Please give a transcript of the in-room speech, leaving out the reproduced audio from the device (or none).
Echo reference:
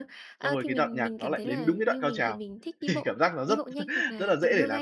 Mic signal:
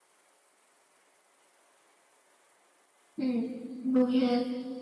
ừm, vui ha.